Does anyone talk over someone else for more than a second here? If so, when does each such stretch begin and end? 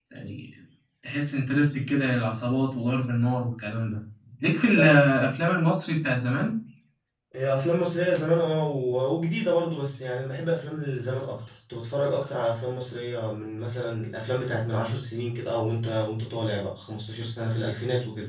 none

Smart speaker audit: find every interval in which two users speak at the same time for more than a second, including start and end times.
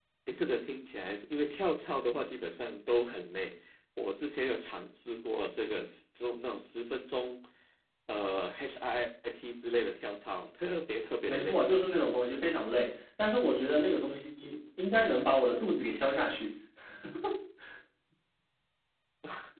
none

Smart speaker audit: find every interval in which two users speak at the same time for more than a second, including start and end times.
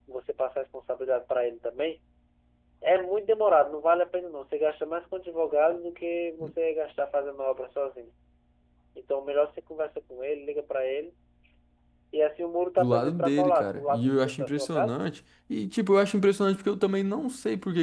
12.8-14.9

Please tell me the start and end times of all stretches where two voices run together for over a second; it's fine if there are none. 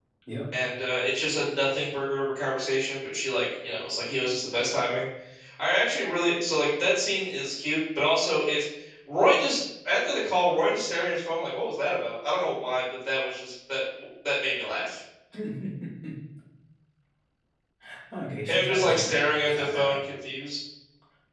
18.5-20.0

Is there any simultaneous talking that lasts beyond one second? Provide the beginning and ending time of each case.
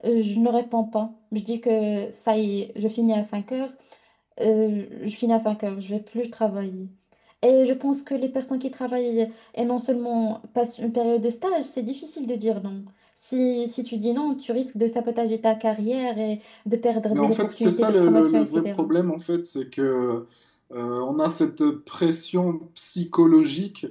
17.1-18.9

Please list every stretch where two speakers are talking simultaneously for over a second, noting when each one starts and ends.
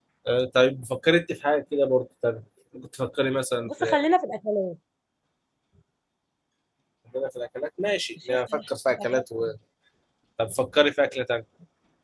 8.3-9.5

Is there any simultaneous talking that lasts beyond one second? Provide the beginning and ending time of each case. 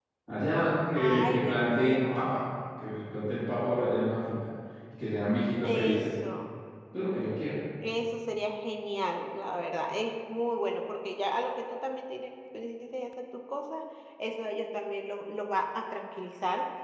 0.9-2.3

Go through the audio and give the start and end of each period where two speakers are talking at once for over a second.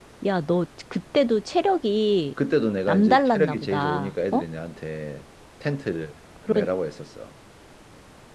2.9-4.4

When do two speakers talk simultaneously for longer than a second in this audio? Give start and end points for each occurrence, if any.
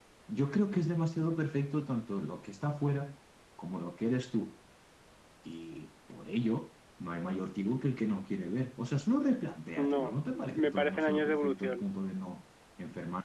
9.8-11.9

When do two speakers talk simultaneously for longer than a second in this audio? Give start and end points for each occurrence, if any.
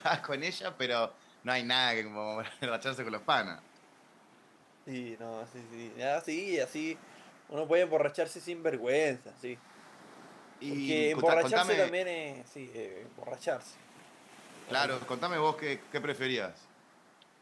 10.7-11.9

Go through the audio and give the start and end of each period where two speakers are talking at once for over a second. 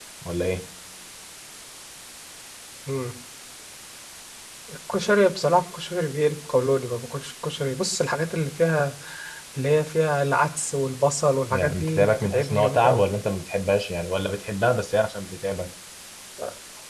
11.5-13.0

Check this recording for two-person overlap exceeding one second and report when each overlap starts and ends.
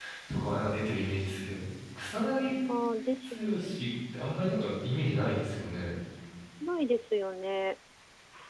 none

